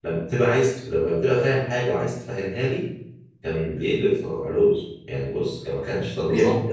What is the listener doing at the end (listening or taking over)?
taking over